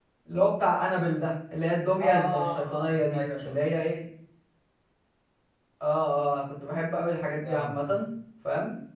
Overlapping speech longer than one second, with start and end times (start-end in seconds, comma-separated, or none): 2.0-3.6